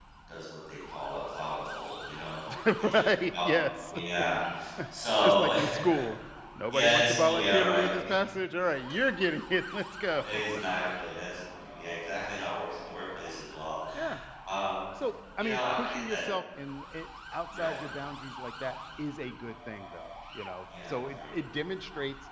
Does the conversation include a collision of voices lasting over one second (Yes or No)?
Yes